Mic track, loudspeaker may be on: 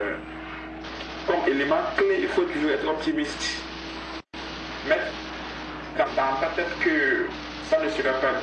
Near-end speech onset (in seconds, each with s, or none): none